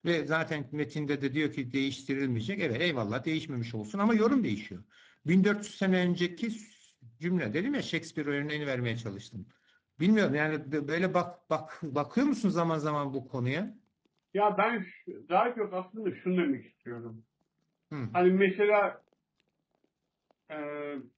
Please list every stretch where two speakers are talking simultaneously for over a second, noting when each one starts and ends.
none

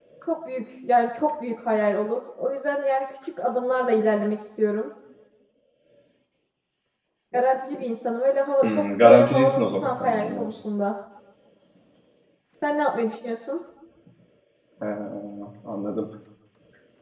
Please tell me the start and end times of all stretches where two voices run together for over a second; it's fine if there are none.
8.6-10.5

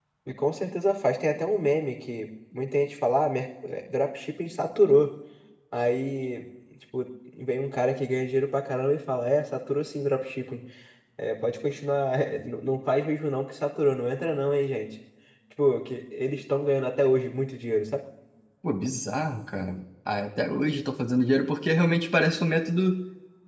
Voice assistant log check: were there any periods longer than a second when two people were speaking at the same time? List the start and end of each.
none

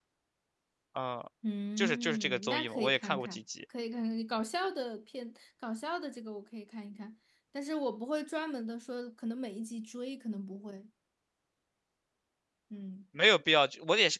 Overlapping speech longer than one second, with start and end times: 1.8-3.4

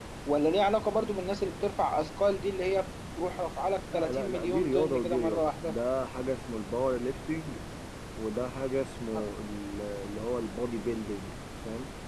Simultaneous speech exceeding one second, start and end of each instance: 3.9-5.8

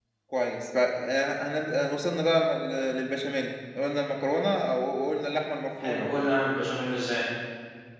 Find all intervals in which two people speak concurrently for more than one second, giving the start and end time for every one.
none

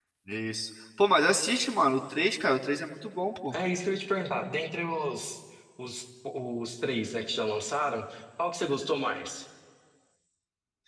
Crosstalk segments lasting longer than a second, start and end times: none

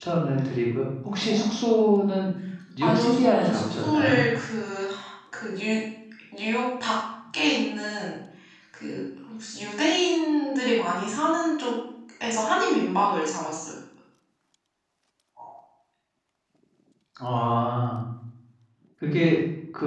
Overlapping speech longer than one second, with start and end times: 2.8-4.2

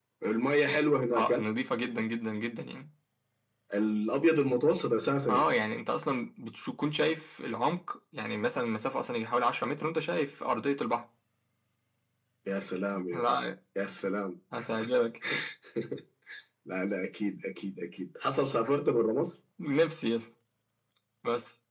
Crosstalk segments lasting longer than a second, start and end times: none

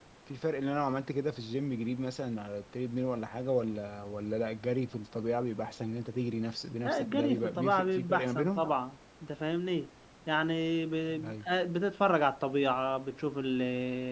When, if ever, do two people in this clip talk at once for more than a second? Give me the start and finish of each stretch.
6.8-8.6

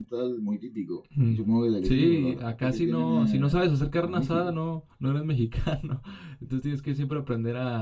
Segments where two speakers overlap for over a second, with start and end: 1.8-3.6

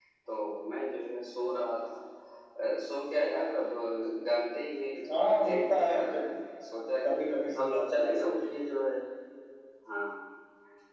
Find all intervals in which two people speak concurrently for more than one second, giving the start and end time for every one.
5.1-6.3, 7.0-8.4

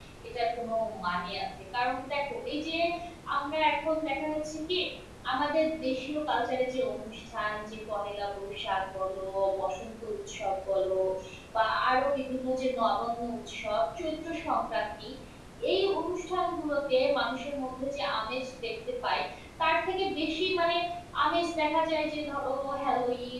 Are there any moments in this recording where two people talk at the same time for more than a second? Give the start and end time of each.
none

